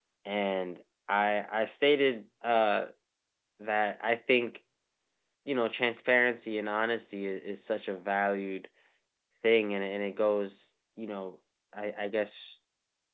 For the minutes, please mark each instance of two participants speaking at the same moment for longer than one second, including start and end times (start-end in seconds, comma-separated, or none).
none